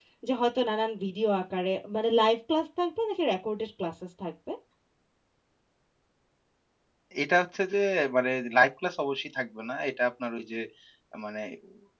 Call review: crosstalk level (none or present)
none